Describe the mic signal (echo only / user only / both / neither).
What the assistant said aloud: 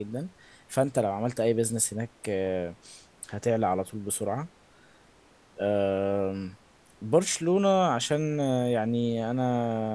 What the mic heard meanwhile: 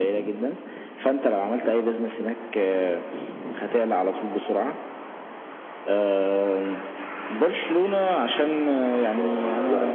both